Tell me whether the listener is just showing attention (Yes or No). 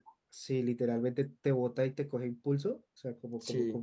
Yes